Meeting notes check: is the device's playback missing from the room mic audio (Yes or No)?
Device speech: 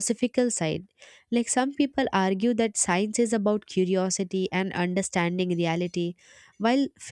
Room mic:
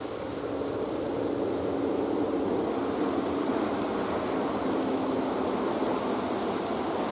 Yes